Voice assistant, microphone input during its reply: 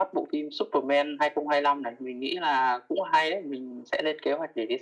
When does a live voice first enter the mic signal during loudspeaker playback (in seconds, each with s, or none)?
none